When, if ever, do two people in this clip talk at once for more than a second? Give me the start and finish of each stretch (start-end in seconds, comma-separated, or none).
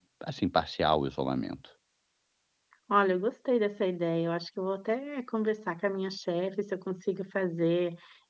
none